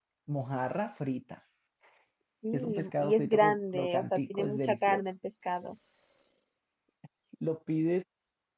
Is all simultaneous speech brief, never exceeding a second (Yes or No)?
No